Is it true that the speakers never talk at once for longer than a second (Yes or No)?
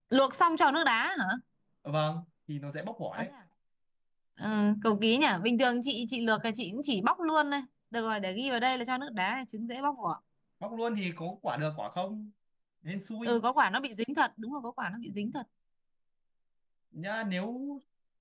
Yes